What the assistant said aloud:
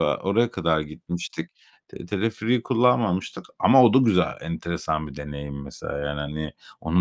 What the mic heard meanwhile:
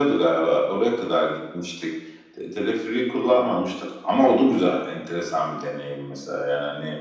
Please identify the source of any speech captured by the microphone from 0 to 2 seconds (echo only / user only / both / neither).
echo only